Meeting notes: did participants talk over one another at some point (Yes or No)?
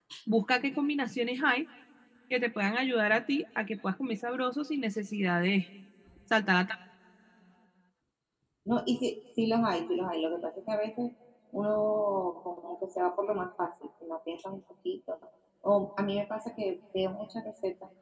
No